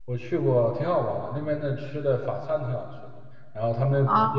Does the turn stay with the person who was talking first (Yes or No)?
Yes